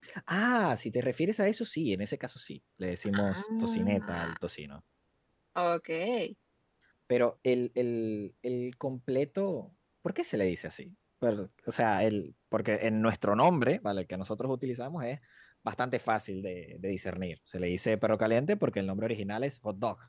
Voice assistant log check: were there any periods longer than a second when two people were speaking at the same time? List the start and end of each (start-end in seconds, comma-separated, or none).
3.1-4.3